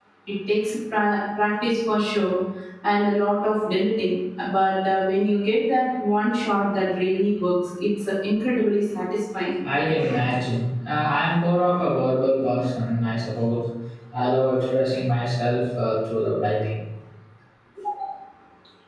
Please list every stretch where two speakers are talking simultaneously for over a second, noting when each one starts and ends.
none

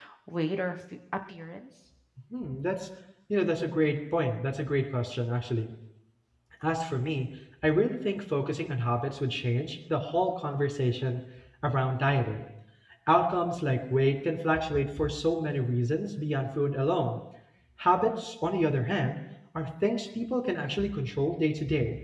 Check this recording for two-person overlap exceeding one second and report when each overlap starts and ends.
none

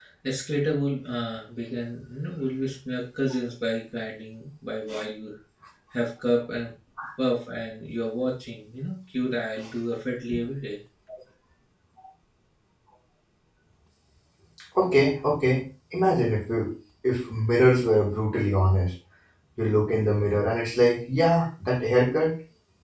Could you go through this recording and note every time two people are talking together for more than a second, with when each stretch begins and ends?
none

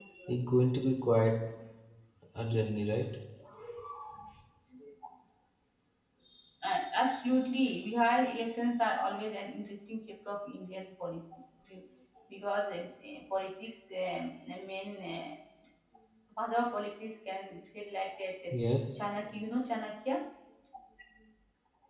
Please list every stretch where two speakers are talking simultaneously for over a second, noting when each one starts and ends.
none

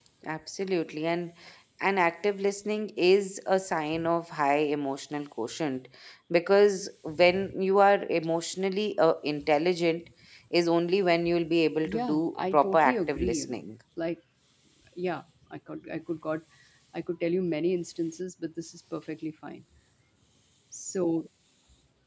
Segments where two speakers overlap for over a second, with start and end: 11.8-13.6

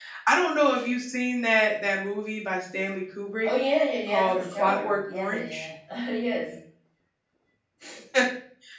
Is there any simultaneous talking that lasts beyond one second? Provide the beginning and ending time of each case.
4.1-5.7

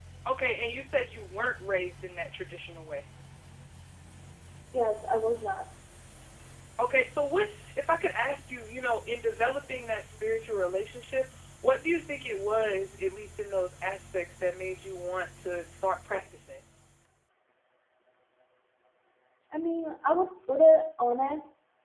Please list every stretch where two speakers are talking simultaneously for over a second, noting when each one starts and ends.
none

